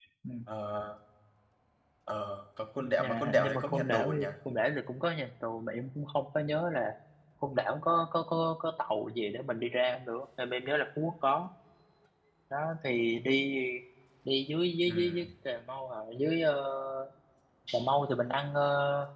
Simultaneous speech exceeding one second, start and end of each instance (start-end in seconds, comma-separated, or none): 3.0-4.3